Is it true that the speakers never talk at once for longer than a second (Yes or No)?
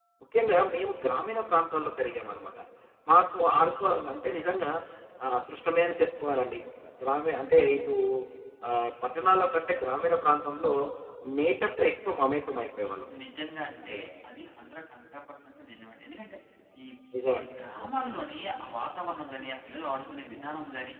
Yes